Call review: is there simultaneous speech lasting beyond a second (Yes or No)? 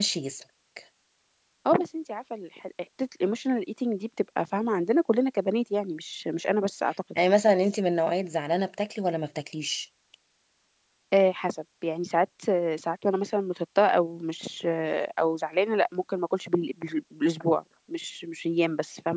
No